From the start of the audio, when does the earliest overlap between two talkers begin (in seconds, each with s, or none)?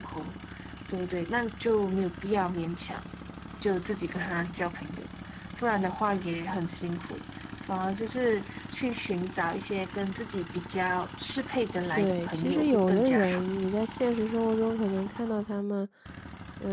11.9 s